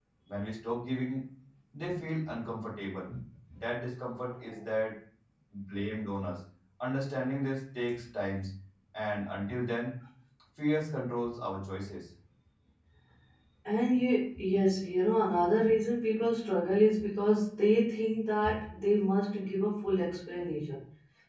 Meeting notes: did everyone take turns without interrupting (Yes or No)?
Yes